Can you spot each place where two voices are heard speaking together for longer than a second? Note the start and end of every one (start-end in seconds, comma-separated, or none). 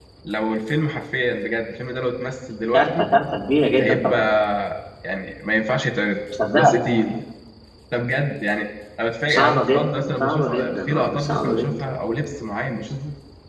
9.3-11.7